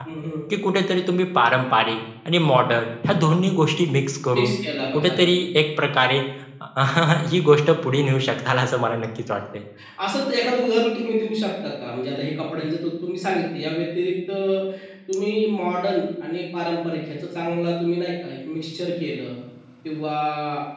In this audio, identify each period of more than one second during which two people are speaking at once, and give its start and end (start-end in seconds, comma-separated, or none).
none